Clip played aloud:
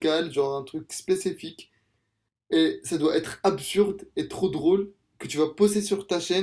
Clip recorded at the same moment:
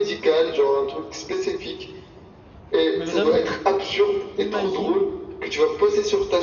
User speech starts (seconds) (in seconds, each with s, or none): 2.9 s